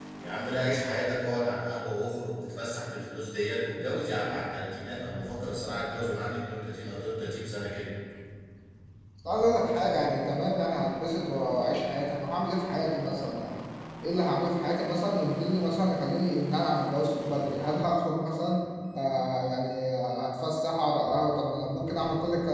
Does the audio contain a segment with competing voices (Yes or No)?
No